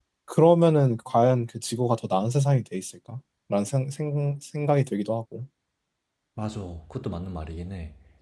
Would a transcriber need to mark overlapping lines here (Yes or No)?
No